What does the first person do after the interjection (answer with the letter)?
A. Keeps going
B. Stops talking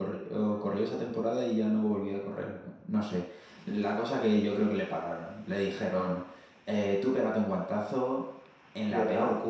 A